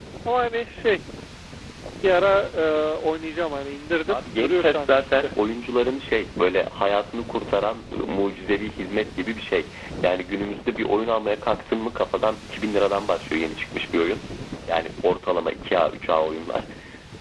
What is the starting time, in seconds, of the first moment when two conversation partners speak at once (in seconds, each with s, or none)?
4.1 s